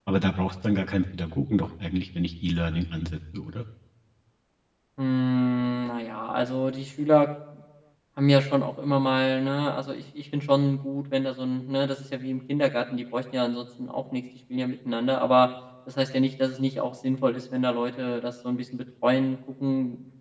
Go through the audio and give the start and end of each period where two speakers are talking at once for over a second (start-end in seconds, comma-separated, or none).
none